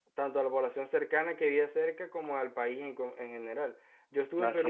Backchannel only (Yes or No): Yes